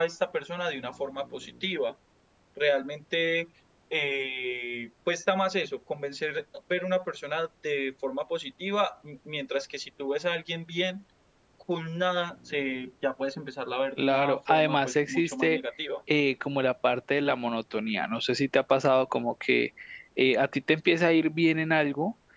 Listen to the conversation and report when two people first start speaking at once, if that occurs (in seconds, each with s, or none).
14.0 s